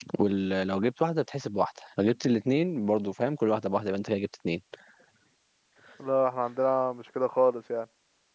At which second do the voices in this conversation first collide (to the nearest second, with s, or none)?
none